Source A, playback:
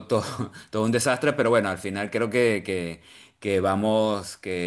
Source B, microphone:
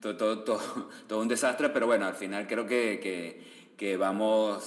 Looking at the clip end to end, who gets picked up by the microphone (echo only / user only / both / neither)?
echo only